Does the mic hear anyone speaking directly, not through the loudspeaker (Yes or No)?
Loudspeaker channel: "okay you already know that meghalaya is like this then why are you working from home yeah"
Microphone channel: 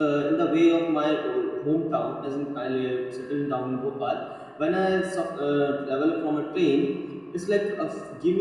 Yes